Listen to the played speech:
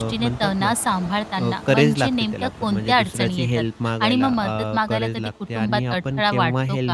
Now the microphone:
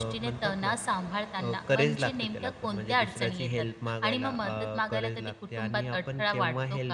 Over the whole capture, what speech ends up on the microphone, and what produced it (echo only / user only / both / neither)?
echo only